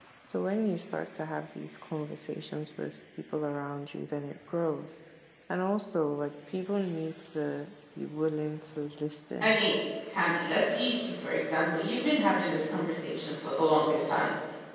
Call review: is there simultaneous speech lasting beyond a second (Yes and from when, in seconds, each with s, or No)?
No